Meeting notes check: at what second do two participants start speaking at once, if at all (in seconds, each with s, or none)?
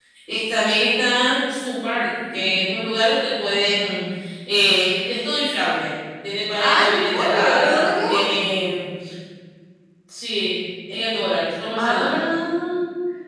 6.6 s